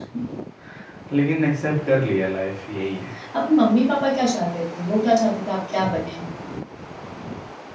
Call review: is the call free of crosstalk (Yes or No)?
Yes